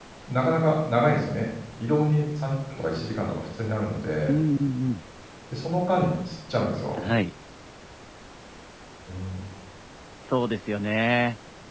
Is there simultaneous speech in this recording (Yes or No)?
No